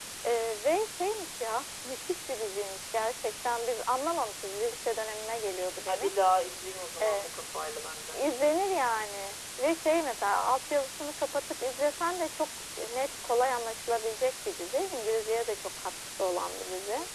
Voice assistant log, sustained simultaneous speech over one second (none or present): none